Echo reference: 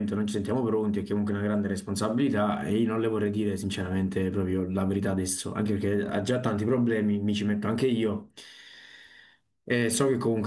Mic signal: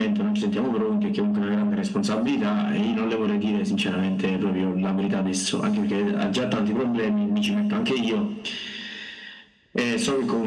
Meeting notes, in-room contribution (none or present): none